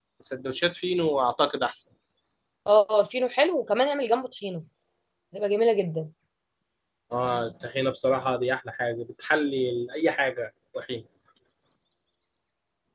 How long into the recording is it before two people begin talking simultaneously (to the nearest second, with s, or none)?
none